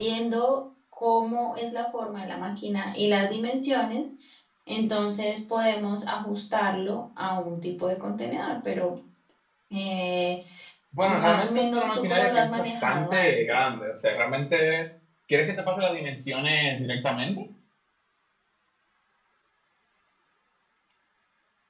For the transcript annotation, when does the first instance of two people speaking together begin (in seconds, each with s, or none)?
11.0 s